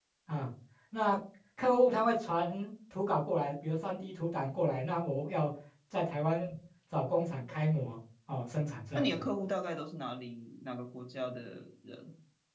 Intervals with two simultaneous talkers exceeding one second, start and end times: none

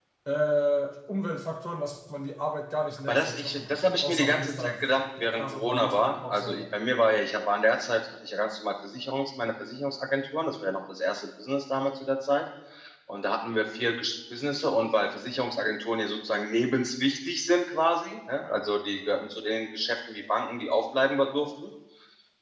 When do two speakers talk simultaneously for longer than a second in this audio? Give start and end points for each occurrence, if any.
3.1-6.6

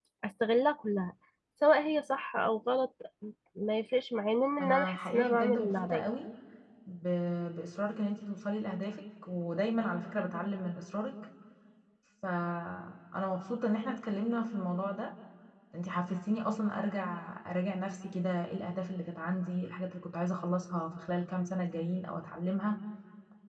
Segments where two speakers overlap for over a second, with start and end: 4.6-6.1

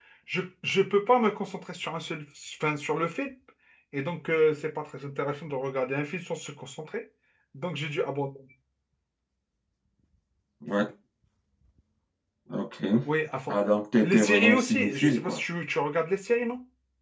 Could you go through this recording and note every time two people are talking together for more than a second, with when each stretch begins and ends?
14.0-15.4

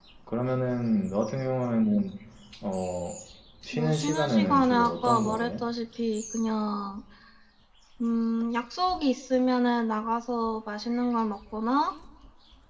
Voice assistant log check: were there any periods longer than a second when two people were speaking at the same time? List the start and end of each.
3.7-5.6

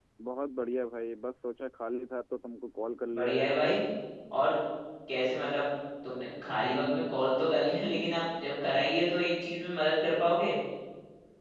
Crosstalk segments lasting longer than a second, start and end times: none

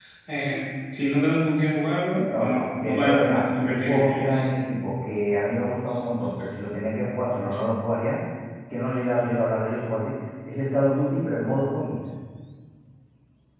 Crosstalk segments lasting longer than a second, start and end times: 2.4-4.4

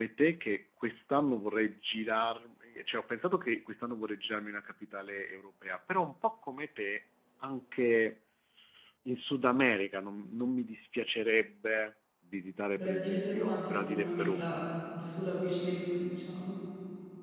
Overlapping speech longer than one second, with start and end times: 12.8-14.4

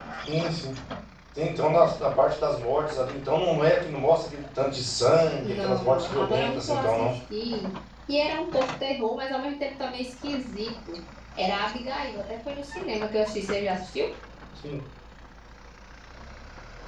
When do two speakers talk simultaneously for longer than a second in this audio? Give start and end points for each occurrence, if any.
5.4-7.2

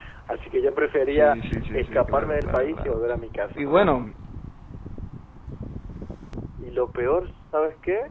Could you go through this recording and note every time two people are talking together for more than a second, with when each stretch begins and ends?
1.7-3.0

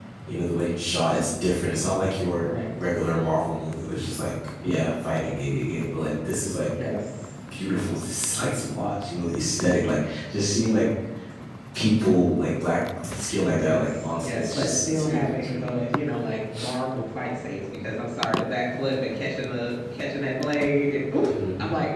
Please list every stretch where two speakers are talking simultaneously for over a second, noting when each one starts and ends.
13.6-15.8

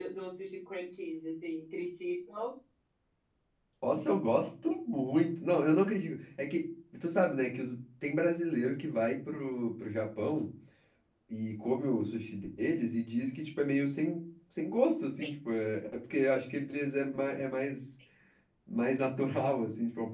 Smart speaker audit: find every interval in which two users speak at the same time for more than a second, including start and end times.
none

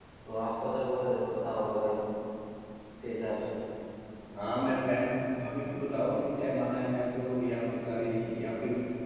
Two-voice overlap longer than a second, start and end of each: none

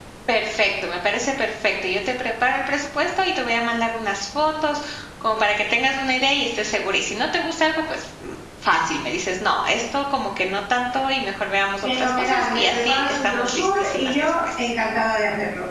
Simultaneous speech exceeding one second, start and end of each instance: 11.8-14.7

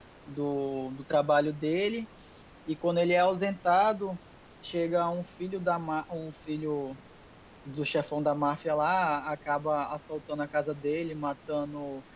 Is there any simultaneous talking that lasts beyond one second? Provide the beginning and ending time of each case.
none

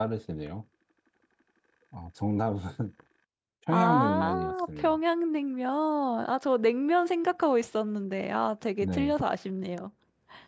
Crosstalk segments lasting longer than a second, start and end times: 3.7-5.0

